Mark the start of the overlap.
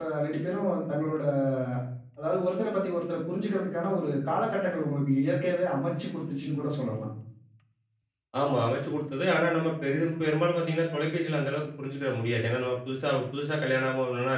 none

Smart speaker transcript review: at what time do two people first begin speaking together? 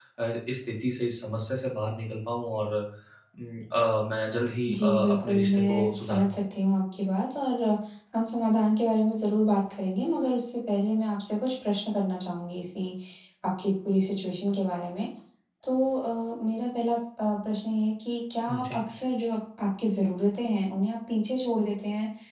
4.7 s

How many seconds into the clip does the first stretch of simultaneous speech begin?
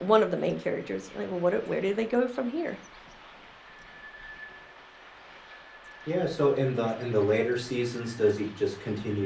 none

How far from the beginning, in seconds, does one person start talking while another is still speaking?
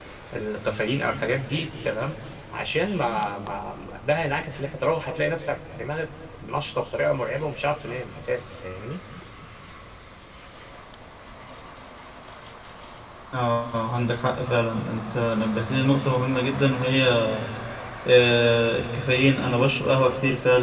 none

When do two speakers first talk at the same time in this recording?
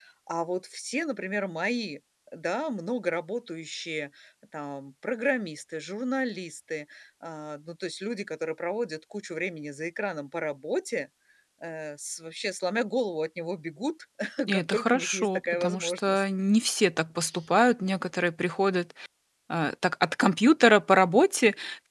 14.5 s

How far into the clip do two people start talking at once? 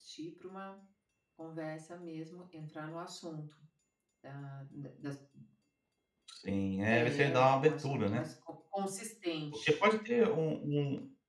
6.9 s

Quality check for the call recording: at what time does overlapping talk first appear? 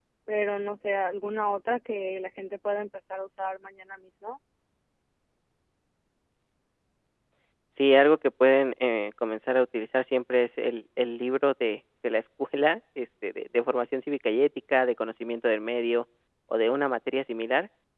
none

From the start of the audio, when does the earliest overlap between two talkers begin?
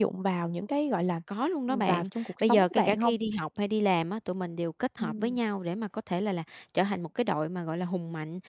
1.7 s

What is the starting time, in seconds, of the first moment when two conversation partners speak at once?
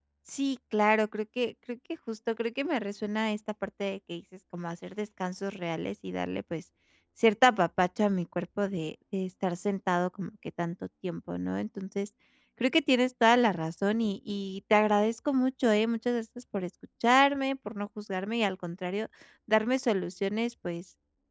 none

